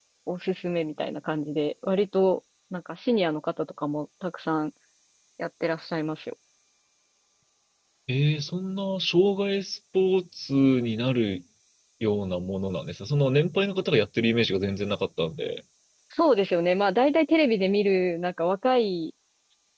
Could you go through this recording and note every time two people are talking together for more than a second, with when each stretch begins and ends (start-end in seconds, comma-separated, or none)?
none